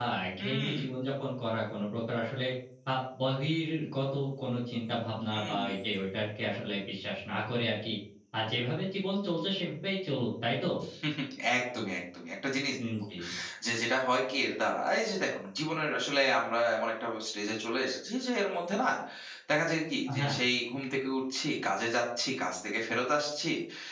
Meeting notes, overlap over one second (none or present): none